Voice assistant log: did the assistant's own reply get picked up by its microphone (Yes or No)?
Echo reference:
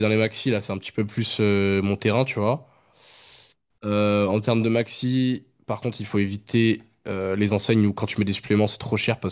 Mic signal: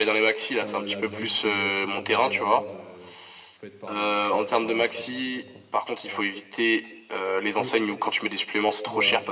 Yes